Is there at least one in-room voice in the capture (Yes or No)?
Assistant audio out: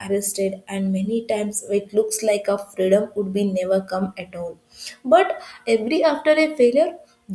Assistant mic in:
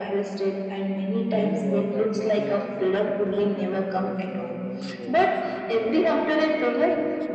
Yes